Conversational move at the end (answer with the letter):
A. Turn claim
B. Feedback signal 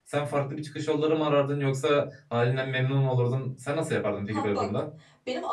A